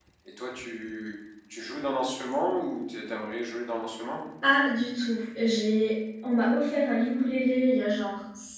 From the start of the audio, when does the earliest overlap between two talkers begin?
none

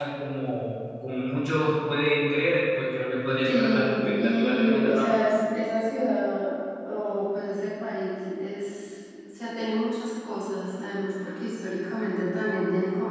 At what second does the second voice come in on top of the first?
3.5 s

